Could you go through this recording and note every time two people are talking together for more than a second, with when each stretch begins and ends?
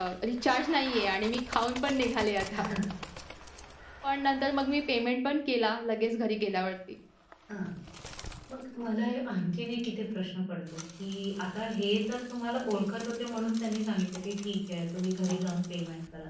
none

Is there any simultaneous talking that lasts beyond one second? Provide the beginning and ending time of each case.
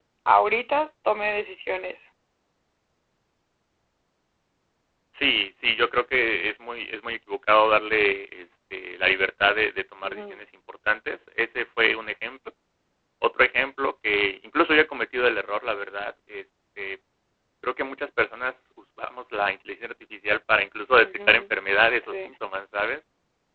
none

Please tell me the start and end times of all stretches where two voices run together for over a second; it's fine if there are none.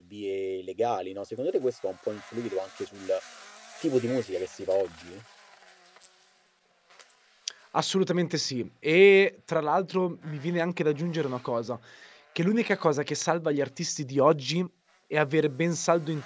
none

